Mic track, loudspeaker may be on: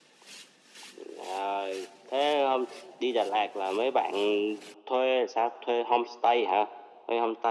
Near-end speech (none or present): none